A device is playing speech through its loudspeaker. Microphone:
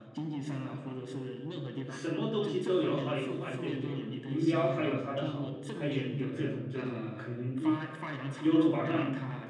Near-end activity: present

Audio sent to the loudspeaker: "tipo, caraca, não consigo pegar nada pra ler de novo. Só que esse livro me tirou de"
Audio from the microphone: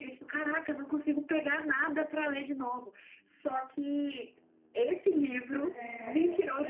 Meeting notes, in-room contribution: present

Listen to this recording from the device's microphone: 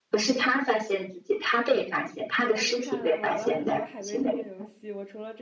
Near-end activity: present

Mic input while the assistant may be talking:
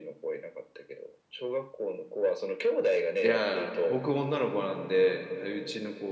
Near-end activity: present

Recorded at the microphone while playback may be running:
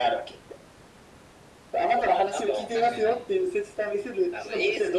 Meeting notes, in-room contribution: present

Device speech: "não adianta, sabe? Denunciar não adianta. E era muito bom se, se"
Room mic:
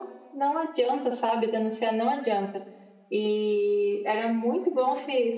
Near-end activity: none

